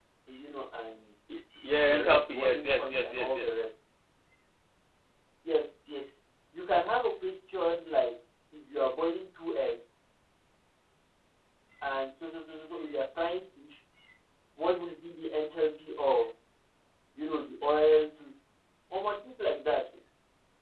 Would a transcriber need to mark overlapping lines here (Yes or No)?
Yes